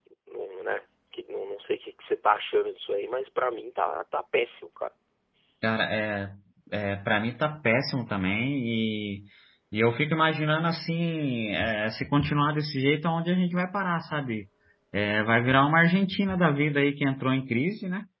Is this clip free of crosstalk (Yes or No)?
Yes